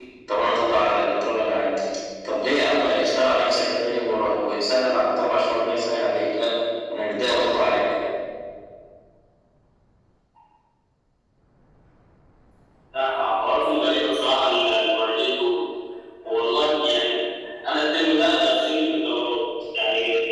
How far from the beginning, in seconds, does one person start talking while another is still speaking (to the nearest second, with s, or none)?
none